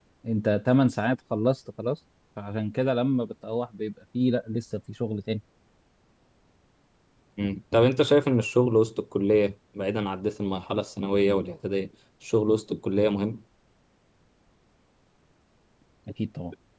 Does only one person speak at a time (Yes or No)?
Yes